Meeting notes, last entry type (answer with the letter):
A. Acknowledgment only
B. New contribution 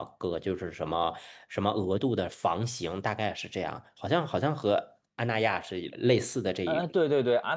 B